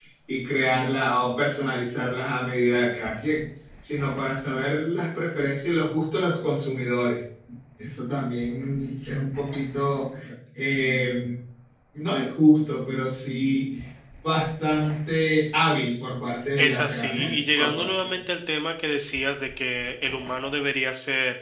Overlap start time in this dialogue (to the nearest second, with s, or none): 17 s